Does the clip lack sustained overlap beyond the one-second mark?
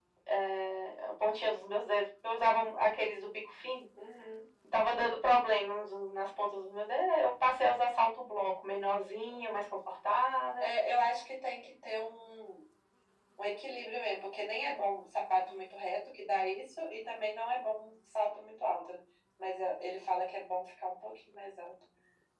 Yes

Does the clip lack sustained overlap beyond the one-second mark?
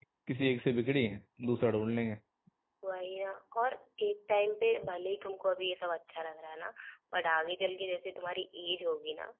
Yes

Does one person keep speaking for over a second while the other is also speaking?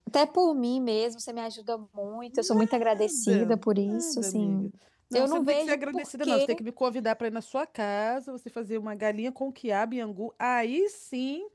Yes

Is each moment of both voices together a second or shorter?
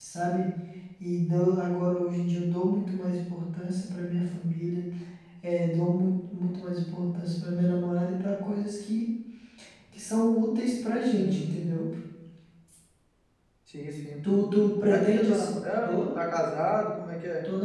No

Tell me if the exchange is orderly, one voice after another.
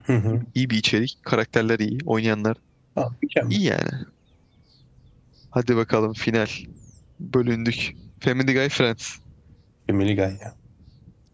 Yes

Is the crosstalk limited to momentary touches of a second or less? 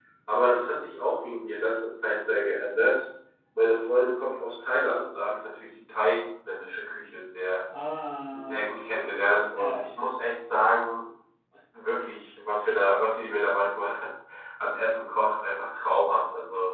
Yes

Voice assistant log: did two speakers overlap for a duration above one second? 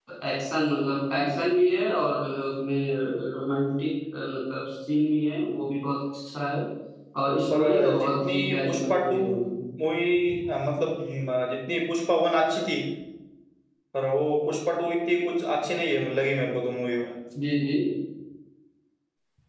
Yes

